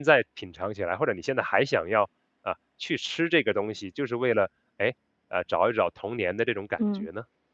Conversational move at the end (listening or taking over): taking over